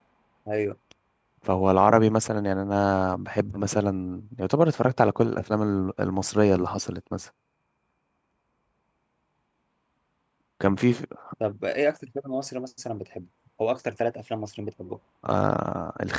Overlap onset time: none

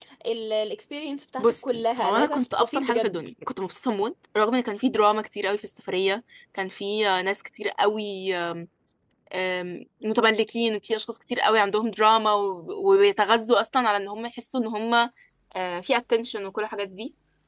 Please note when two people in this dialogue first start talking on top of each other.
1 s

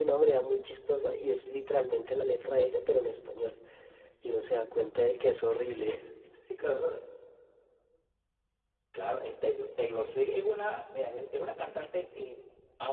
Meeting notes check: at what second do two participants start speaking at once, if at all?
none

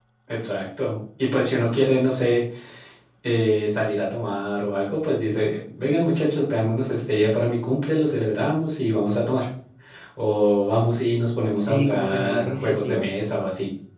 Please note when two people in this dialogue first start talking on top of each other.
12 s

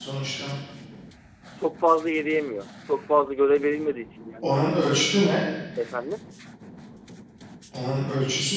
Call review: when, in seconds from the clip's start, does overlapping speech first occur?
none

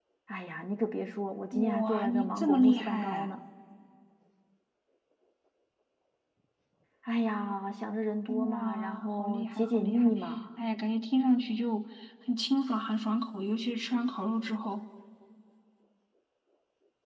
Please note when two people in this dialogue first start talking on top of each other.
2 s

